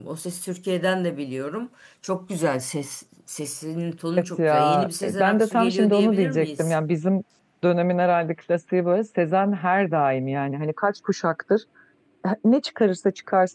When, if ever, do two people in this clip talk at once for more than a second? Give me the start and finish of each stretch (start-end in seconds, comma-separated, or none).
4.4-6.8